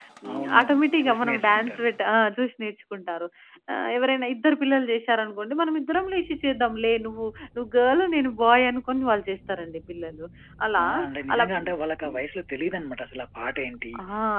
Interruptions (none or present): present